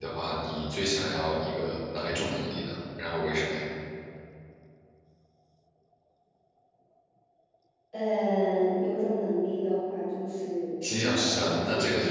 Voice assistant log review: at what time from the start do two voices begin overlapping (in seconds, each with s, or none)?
10.8 s